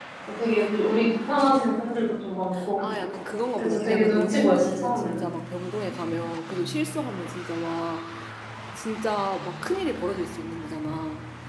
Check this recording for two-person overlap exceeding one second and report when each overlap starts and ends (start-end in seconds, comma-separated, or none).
3.6-5.2